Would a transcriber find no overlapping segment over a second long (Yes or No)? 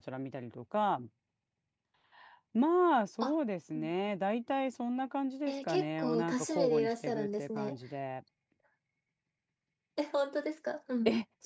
No